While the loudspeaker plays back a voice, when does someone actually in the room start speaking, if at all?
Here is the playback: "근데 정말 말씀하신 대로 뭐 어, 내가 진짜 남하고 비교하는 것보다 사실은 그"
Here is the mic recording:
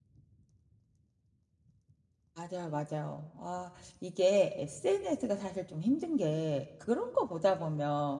2 s

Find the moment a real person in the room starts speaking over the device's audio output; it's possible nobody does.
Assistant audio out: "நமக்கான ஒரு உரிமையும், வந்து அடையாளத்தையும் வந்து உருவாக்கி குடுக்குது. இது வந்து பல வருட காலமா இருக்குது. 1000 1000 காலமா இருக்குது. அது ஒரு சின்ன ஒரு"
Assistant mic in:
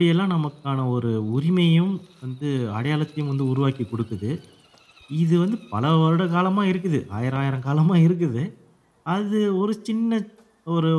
none

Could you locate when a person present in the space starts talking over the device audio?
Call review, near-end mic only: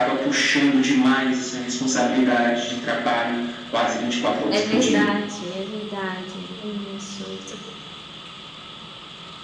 4 s

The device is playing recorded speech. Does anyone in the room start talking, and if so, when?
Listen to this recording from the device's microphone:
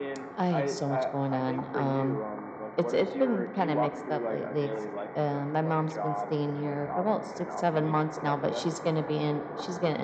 none

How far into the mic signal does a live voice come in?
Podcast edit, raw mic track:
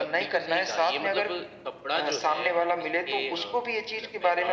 none

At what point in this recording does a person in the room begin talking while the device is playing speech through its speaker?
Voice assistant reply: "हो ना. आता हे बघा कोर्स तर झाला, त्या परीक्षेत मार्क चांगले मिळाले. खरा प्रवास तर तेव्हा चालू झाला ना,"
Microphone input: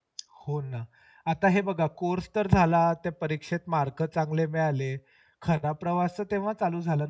none

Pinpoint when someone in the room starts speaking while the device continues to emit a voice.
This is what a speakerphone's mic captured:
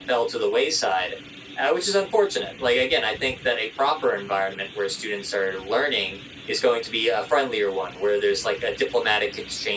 none

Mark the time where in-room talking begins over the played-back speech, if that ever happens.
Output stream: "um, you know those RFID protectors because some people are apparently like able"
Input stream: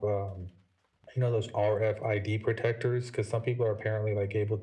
none

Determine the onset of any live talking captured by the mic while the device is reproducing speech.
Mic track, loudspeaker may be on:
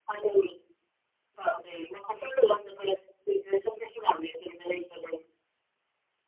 none

